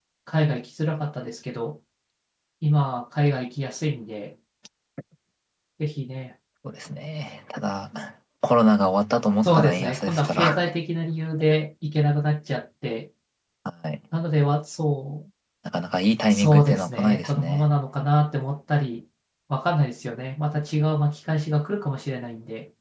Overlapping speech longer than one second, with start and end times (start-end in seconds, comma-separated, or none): 9.4-10.7, 16.3-17.6